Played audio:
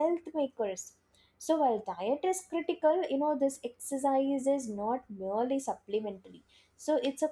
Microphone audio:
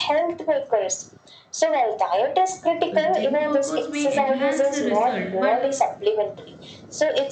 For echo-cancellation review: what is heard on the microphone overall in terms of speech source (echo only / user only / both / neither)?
both